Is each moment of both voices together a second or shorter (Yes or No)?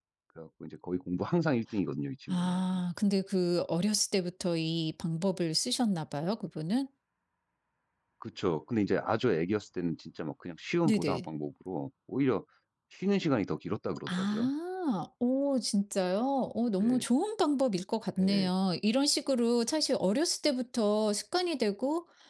Yes